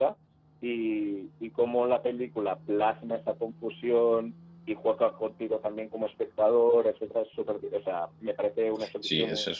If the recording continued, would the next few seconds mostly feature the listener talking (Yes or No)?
Yes